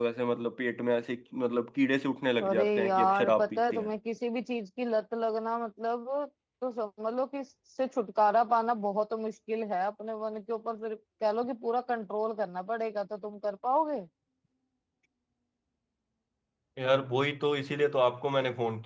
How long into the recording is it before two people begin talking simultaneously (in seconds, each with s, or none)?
2.4 s